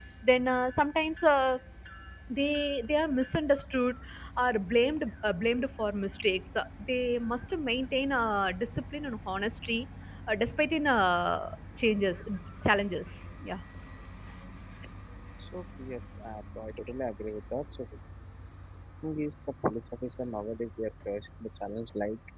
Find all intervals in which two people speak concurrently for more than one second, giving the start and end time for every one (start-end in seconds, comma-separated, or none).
none